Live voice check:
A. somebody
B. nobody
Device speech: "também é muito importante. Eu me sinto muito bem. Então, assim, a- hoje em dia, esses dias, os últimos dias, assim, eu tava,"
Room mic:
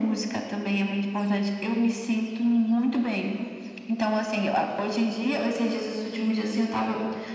B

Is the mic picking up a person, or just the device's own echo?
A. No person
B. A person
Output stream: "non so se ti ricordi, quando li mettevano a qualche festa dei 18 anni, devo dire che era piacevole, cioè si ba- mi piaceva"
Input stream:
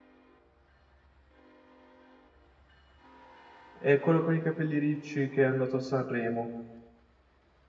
B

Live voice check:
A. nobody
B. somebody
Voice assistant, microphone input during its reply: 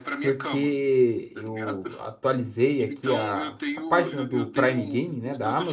B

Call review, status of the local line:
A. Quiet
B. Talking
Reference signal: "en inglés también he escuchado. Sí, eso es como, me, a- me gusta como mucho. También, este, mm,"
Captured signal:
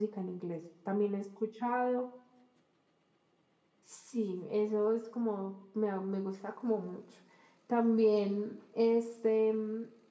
A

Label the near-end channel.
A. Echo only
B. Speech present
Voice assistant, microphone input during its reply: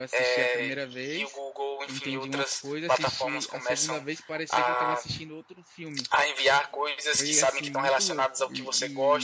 B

